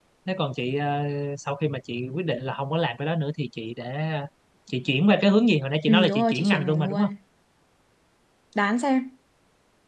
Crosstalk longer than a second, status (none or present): present